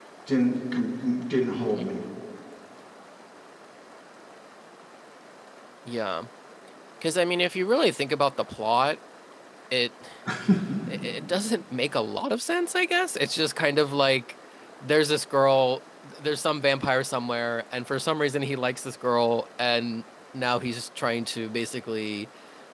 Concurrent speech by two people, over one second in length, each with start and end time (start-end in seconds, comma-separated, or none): none